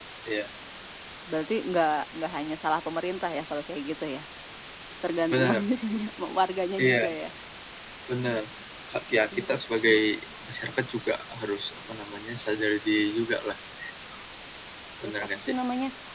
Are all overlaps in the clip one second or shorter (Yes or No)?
Yes